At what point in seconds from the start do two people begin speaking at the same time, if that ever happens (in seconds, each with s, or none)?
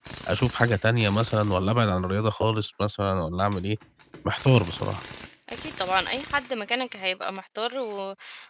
none